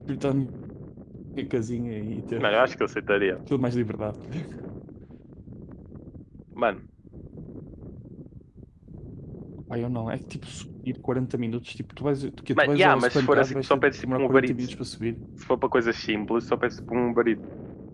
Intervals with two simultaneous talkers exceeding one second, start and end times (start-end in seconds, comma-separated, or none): 12.6-14.5